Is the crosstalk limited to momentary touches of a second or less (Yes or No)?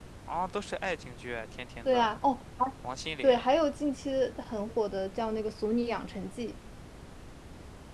Yes